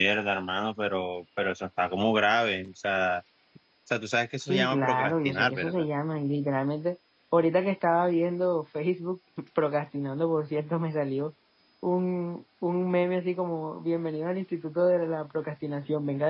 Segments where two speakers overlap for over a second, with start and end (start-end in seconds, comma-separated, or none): 4.5-5.8